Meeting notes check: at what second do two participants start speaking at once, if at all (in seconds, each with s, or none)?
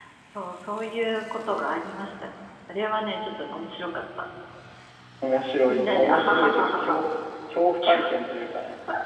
5.7 s